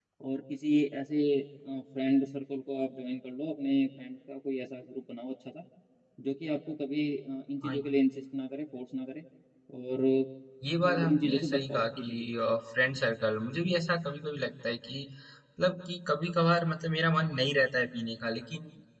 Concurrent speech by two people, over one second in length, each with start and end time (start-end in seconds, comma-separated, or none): 10.9-12.1